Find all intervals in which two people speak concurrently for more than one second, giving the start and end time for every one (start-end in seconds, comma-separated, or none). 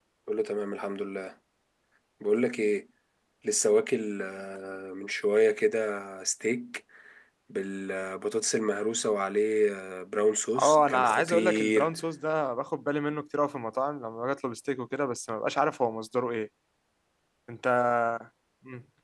10.6-11.9